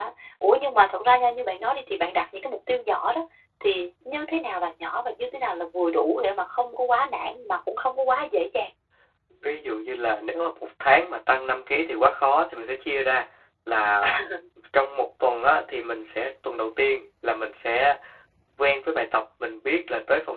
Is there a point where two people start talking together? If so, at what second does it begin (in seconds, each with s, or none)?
none